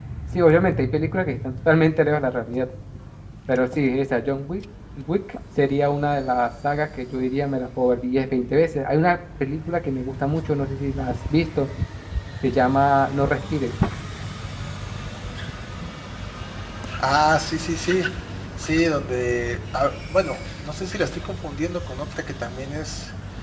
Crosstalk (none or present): none